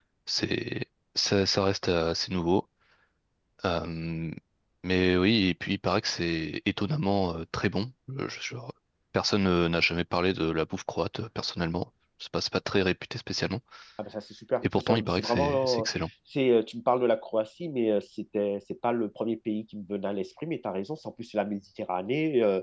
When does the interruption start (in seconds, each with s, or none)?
14.6 s